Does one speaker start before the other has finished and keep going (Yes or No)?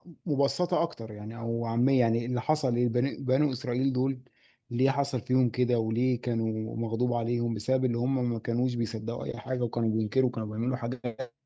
No